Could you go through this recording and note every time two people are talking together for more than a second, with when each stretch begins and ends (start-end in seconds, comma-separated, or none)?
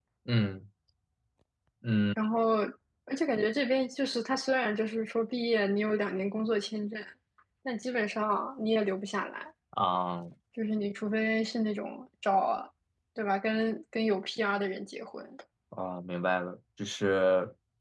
none